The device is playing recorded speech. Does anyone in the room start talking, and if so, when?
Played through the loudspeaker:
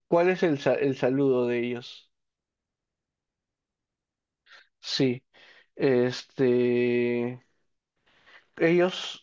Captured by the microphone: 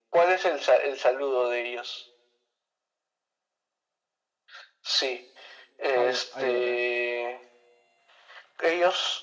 5.9 s

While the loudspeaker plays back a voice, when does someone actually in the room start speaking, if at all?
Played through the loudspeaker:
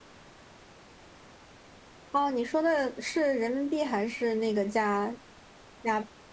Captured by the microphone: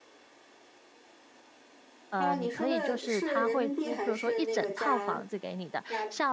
2.1 s

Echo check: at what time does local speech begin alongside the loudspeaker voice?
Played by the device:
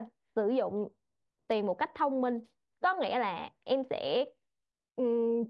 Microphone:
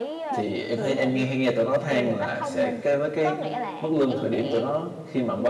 0.3 s

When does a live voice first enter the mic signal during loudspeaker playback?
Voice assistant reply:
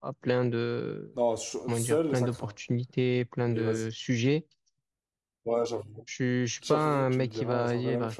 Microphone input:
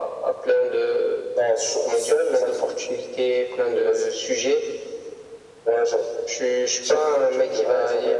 none

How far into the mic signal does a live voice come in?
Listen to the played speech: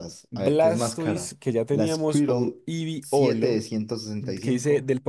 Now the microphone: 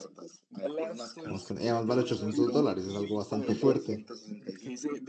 1.2 s

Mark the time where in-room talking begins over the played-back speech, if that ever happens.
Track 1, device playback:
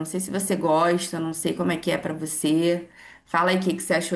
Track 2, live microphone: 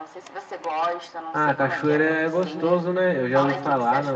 1.3 s

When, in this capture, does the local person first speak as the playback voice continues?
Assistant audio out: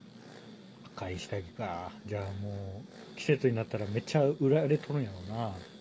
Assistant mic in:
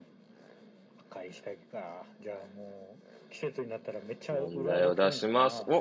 4.3 s

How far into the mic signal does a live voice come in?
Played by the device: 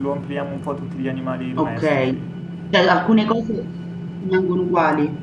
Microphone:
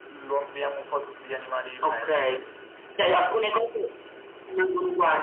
none

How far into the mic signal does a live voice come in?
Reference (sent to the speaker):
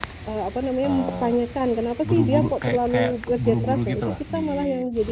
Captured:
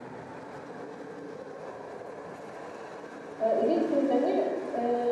3.4 s

